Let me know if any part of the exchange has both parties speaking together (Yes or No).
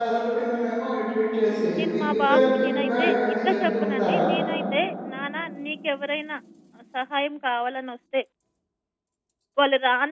Yes